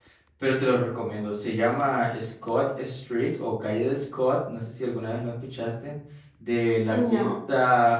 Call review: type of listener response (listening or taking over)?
listening